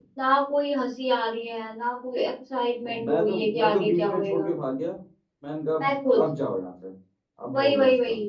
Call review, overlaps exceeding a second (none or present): present